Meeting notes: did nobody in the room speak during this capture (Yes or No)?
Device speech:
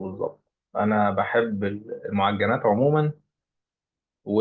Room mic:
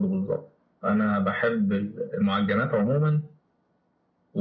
Yes